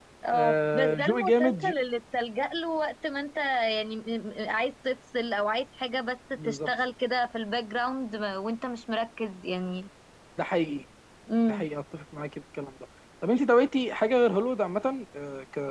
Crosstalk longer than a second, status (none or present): present